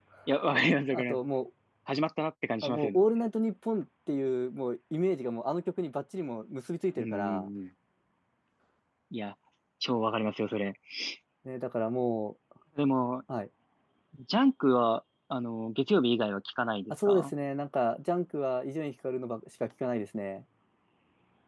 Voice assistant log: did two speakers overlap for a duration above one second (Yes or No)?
No